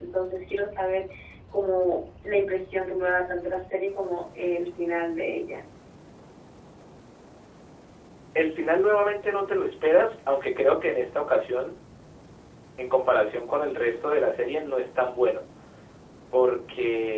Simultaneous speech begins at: none

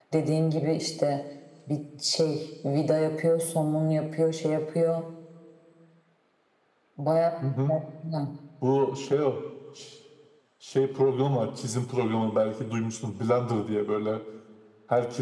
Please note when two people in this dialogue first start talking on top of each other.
none

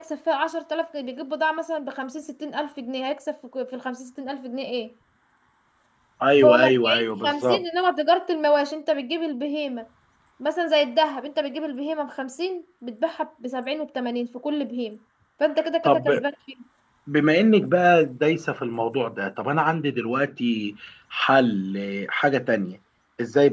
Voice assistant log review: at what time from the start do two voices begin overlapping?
6.4 s

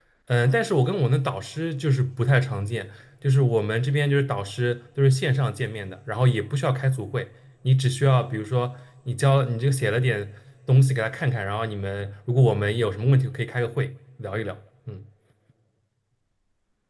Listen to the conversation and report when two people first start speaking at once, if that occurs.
none

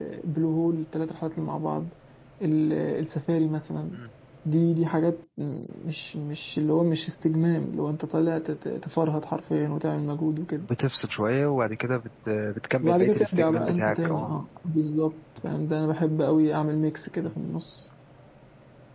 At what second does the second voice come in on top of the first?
12.8 s

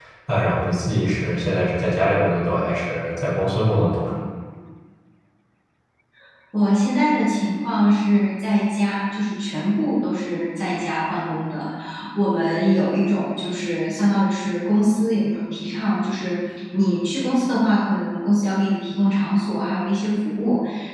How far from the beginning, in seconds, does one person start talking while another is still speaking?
none

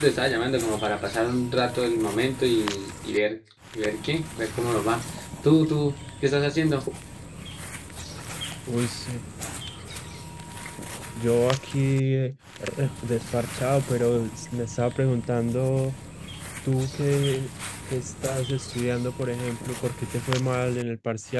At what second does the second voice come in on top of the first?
none

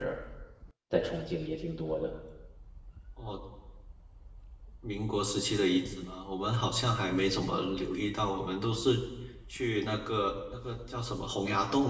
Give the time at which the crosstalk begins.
none

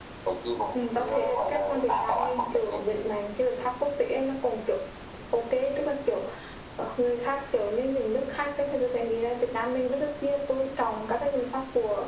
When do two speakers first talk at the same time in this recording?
0.7 s

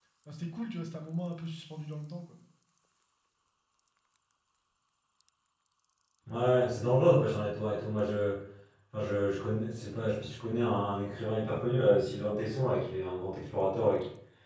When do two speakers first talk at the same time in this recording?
none

